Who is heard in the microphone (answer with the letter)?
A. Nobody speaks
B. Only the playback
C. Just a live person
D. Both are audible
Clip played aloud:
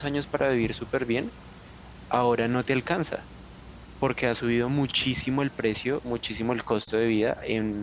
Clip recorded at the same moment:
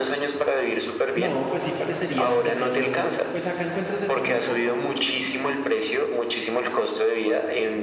D